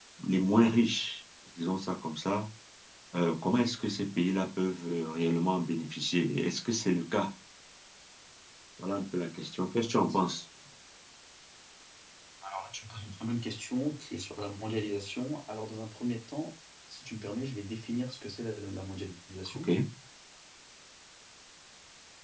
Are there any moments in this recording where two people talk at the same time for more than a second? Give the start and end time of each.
none

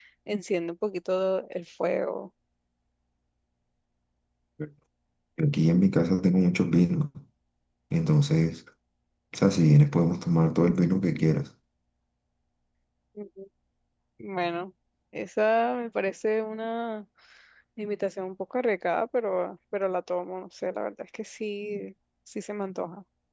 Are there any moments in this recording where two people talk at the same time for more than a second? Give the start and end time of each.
none

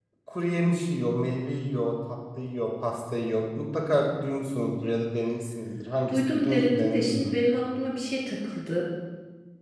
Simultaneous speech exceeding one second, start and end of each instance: 6.1-7.3

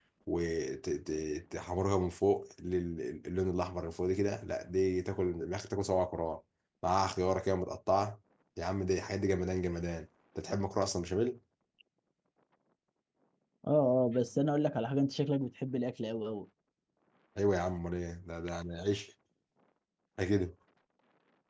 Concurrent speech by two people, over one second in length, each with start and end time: none

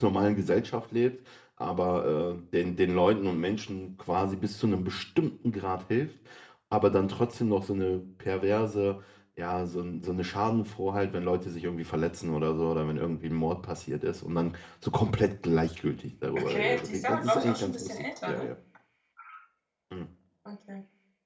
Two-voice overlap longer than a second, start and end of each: 16.4-18.5

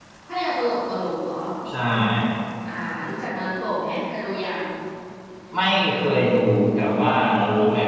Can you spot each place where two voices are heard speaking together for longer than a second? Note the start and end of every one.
none

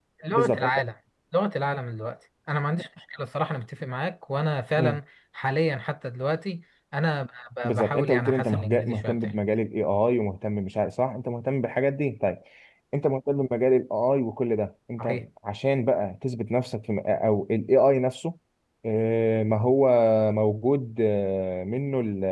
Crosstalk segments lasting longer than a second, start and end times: 7.6-9.3

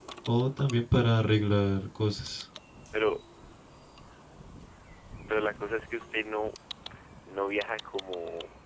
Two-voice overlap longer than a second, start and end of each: none

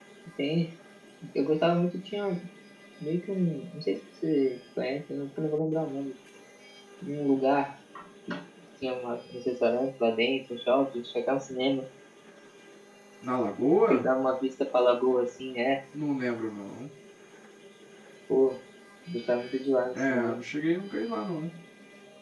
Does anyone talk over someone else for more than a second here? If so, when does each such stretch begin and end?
none

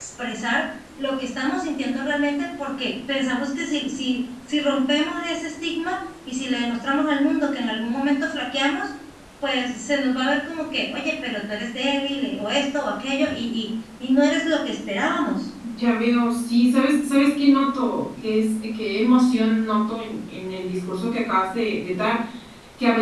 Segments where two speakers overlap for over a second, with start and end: none

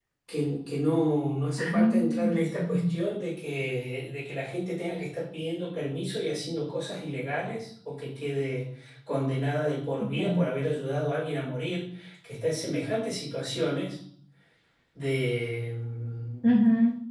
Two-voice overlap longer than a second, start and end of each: 1.6-2.9

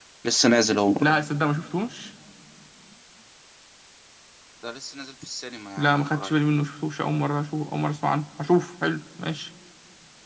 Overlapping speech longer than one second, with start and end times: none

